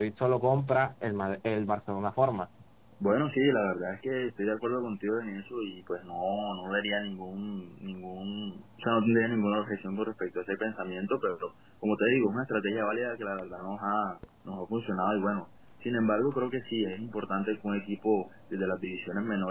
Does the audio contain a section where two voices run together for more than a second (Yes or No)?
No